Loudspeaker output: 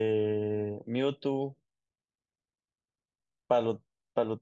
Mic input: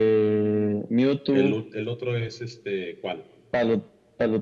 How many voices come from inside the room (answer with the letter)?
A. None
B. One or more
B